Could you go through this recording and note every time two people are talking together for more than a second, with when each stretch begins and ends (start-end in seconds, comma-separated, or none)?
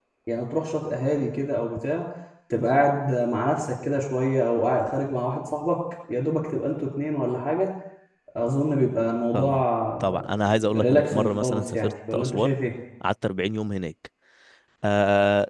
10.8-12.5